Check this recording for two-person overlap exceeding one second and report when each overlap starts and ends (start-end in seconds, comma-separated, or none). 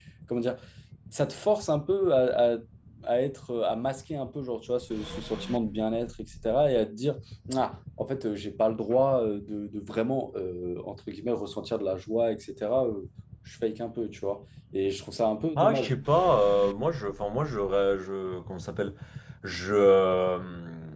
none